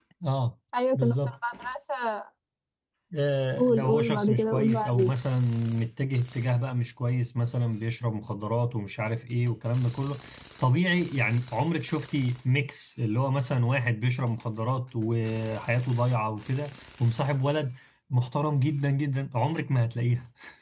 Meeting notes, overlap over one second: present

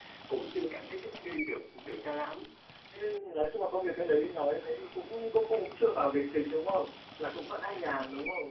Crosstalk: none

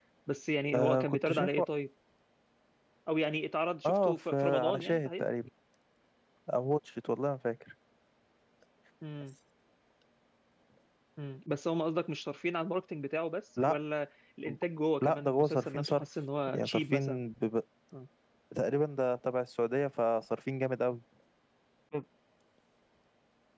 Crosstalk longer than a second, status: present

